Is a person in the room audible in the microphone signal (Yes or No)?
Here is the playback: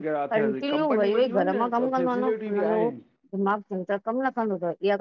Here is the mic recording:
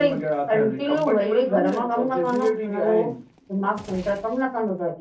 No